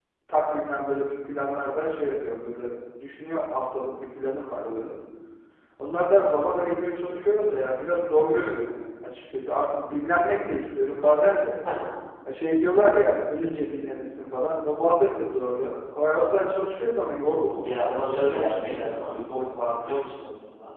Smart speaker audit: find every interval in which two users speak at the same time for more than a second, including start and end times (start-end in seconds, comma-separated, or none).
17.6-19.5